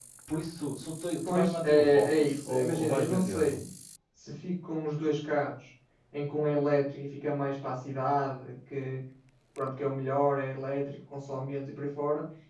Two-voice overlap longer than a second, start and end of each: 1.3-3.6

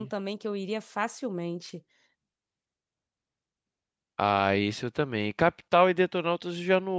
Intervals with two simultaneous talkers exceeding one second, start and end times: none

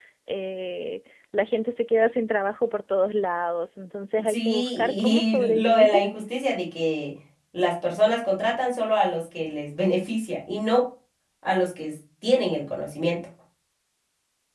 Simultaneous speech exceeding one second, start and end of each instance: 4.3-6.0

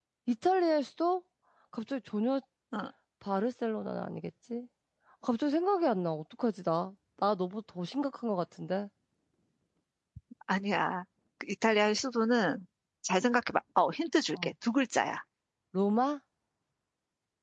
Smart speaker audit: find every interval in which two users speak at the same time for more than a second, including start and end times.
none

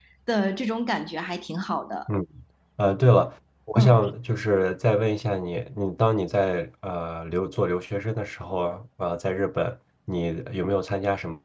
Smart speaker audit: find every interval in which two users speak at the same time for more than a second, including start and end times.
none

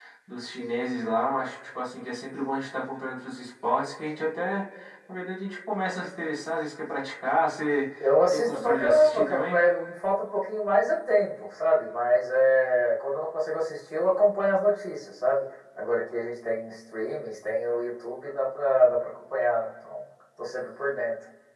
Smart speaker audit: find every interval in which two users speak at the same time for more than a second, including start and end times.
8.3-9.6

